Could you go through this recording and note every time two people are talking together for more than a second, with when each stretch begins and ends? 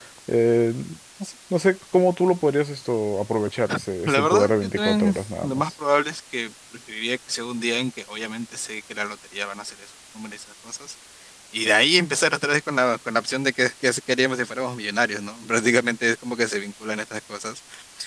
4.1-5.7

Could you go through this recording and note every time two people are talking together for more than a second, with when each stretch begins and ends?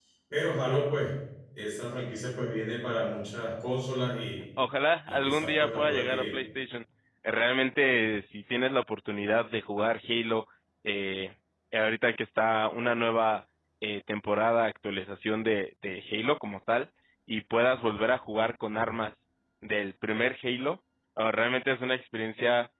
5.1-6.4

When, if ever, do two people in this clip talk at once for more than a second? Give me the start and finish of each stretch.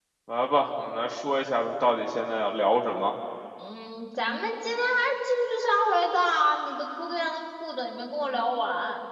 none

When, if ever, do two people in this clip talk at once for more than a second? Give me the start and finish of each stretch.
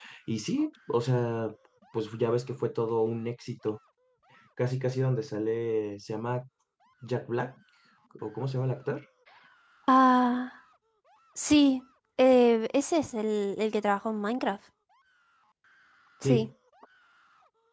none

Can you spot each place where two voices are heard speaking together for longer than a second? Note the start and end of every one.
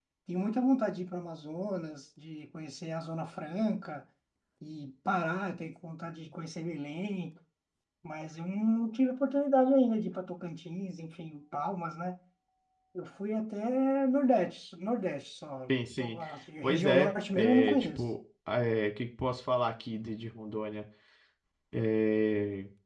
16.6-18.0

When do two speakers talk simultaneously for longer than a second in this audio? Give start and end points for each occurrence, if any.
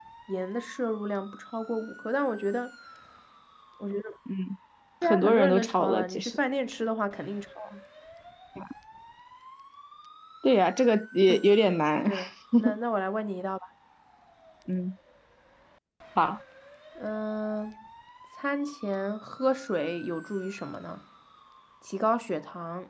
5.0-6.4

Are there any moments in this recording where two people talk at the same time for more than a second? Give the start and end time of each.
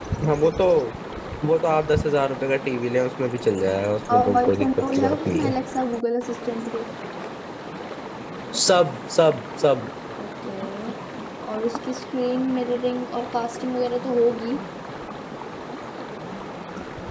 4.1-5.5

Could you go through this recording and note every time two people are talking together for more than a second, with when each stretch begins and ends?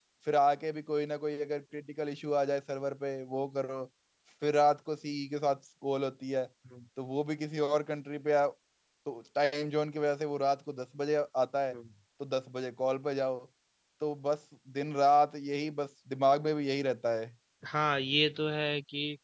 none

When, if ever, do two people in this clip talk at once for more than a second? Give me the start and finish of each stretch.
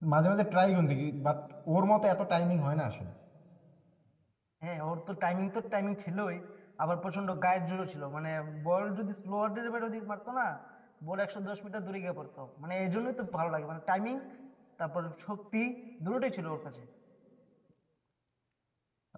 none

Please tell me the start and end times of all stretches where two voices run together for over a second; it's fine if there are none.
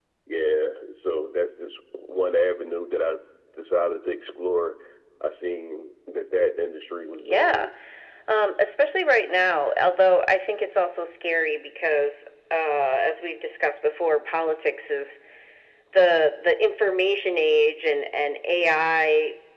none

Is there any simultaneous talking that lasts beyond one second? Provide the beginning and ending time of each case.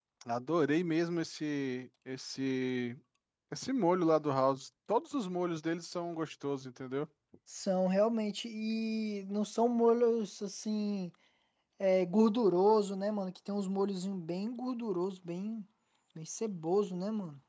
none

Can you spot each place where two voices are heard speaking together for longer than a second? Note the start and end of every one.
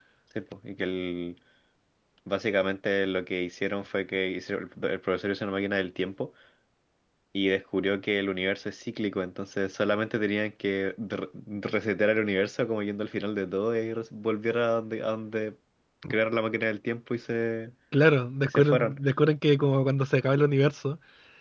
none

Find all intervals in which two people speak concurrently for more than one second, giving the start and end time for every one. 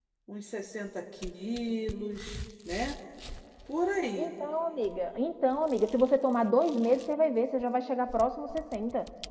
none

